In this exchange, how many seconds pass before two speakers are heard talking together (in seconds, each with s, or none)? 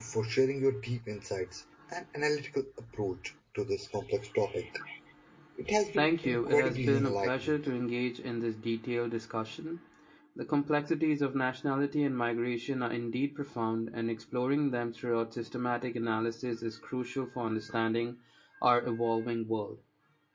6.0 s